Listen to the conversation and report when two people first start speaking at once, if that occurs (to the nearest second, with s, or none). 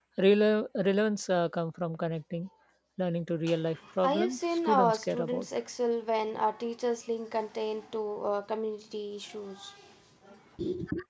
4 s